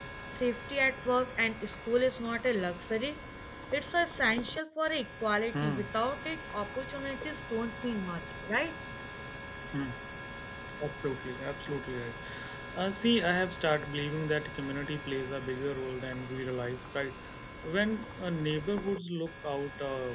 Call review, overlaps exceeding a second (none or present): none